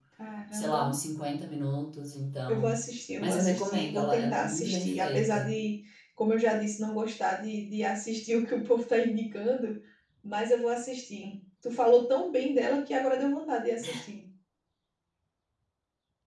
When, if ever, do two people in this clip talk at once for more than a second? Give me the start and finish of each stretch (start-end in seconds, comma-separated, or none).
3.2-5.6